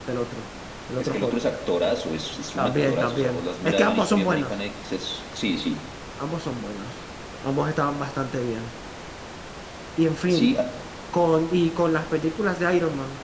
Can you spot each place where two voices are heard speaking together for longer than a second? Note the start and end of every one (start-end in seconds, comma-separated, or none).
2.6-4.5